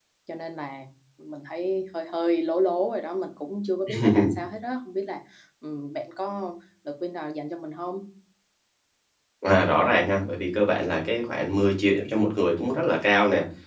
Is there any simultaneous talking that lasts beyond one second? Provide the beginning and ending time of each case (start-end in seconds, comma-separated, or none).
none